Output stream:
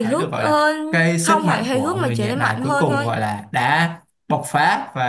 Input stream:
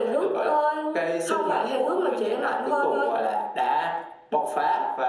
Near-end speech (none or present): none